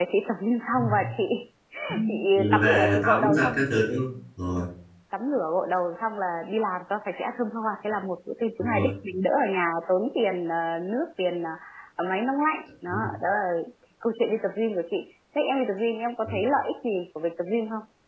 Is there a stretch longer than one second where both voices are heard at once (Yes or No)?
Yes